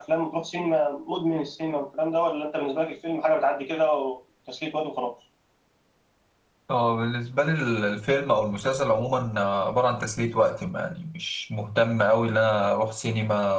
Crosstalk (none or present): none